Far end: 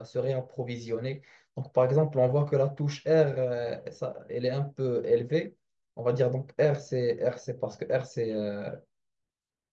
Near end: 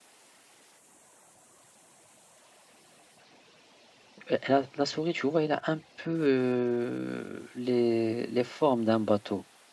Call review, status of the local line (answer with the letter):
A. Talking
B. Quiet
A